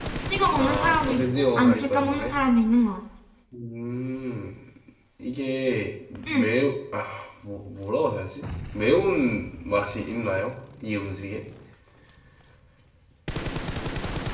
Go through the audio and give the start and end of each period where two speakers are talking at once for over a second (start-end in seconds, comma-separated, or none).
0.5-2.4